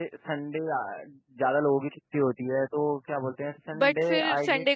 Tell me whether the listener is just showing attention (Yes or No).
No